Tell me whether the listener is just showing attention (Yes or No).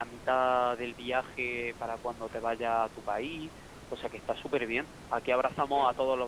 Yes